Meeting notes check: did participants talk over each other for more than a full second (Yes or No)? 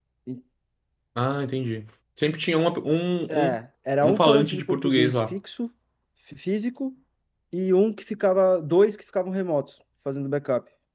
Yes